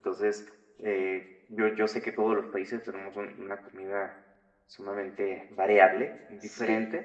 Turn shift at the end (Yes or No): No